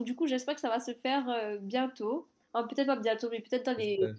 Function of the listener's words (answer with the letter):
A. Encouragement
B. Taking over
A